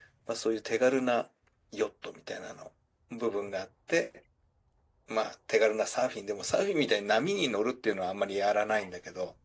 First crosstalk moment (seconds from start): none

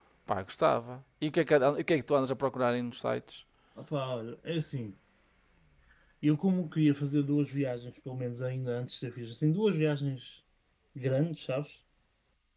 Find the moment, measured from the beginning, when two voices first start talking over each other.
none

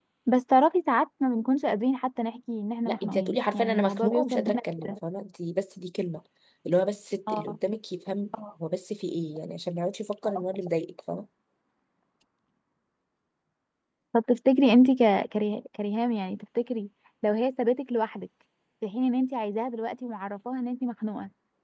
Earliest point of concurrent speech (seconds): 2.9 s

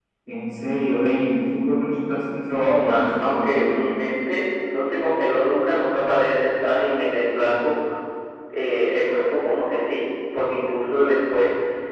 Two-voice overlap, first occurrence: 2.4 s

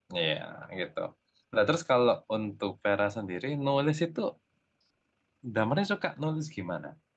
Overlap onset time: none

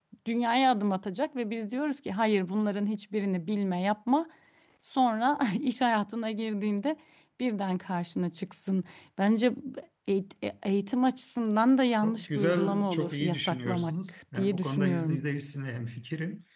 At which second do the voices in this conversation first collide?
12.0 s

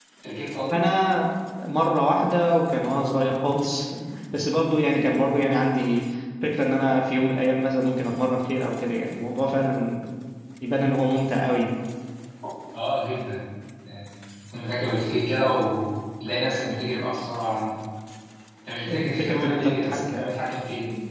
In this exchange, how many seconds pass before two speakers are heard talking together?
18.8 s

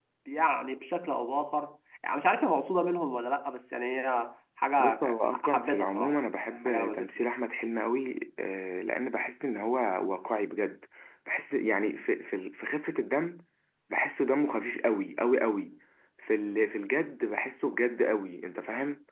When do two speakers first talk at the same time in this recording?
4.8 s

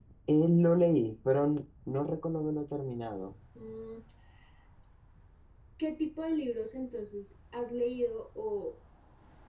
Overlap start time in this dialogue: none

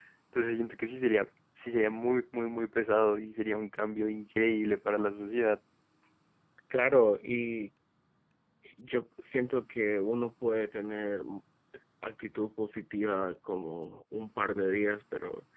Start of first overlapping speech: none

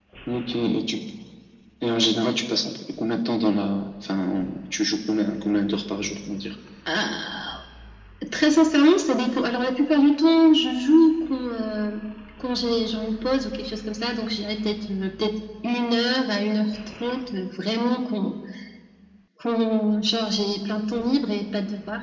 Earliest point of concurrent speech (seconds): none

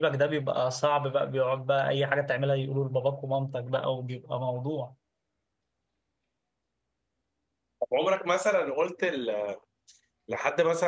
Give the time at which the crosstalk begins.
none

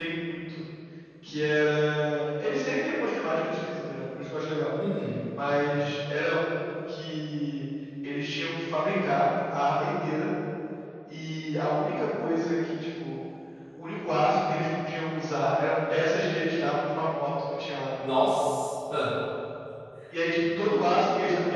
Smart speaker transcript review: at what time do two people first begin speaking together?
none

